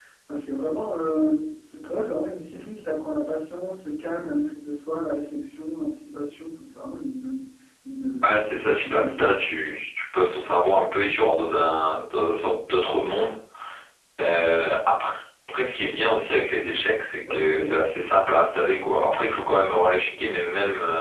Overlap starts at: 8.2 s

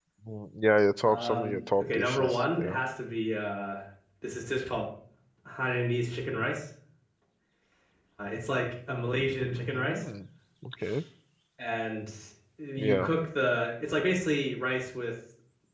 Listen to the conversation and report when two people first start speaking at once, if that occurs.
1.0 s

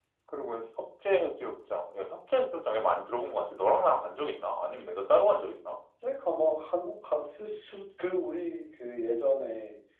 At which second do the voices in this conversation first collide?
none

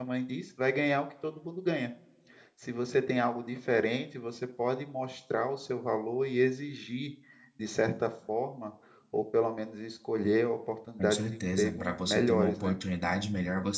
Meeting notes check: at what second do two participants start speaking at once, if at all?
11.0 s

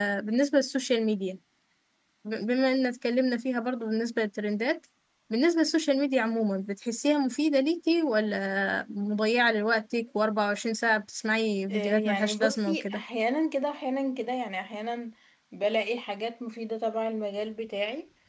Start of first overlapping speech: 11.7 s

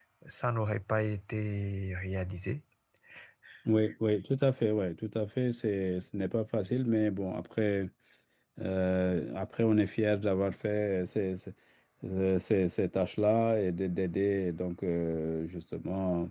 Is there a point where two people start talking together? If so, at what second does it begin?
none

